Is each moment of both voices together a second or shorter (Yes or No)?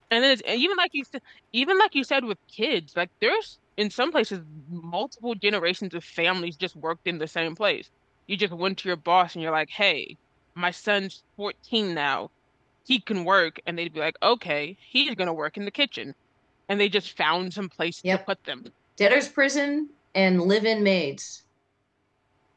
Yes